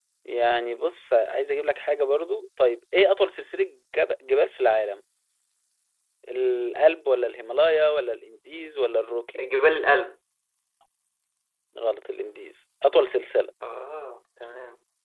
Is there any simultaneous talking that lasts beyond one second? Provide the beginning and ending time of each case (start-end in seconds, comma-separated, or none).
none